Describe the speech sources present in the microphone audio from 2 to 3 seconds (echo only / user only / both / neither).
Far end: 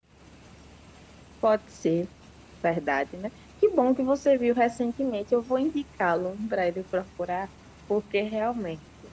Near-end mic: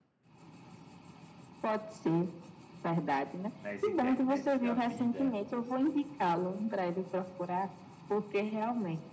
echo only